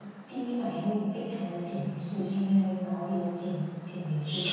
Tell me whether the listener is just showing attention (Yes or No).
No